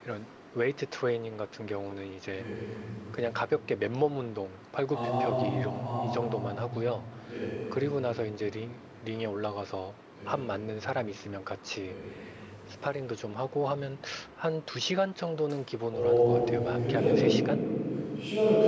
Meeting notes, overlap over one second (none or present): present